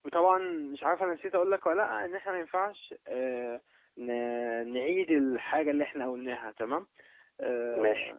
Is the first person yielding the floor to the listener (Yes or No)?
No